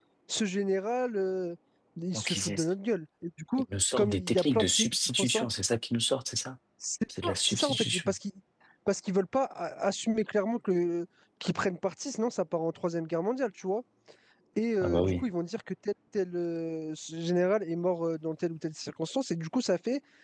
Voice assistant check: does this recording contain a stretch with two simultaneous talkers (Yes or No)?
Yes